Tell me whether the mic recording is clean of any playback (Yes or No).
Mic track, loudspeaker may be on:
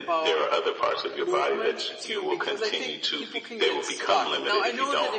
No